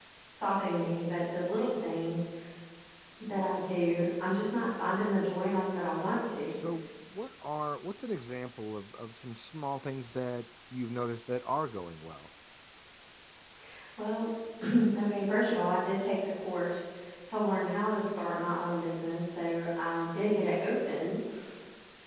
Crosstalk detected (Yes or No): No